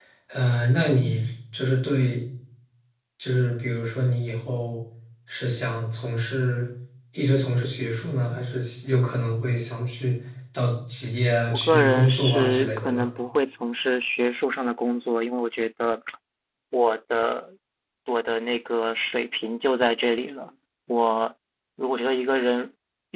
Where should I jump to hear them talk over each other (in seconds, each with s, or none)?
11.5 s